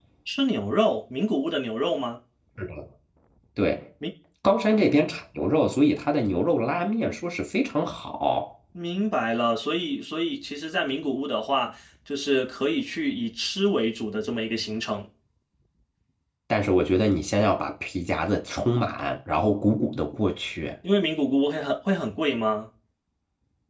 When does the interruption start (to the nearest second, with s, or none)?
none